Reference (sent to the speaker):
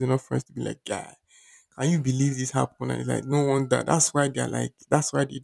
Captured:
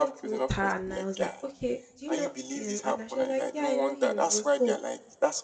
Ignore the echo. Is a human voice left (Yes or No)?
Yes